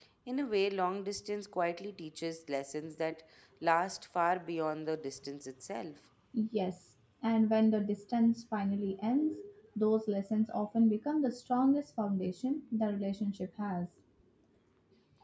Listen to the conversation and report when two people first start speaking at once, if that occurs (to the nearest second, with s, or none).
none